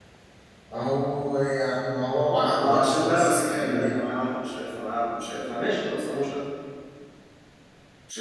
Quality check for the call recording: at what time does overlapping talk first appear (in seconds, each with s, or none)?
2.5 s